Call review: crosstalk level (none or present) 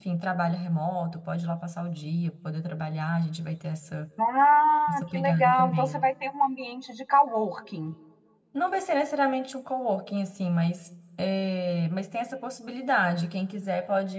present